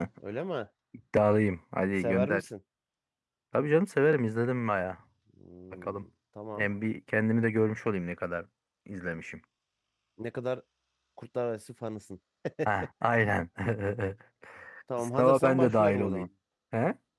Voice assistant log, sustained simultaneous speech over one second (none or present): present